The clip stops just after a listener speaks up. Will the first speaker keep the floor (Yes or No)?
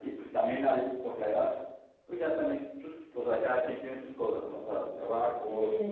No